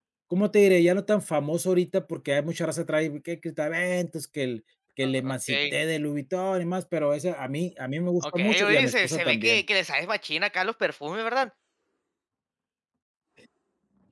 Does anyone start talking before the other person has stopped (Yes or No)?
Yes